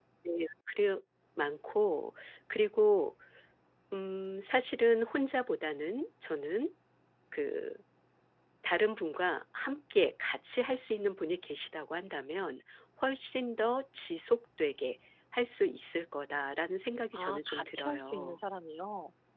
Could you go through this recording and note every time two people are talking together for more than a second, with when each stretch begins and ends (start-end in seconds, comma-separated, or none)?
17.1-18.4